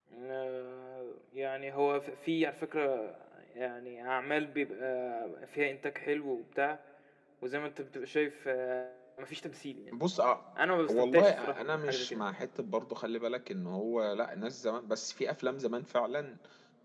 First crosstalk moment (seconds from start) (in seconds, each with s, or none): 10.9 s